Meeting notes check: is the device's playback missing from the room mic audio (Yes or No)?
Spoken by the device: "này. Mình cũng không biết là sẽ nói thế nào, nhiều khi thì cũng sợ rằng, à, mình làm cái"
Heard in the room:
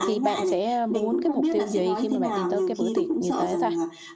No